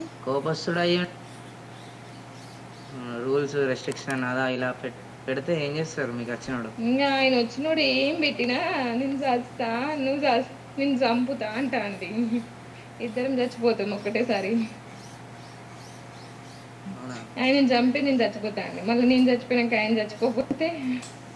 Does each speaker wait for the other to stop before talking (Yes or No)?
Yes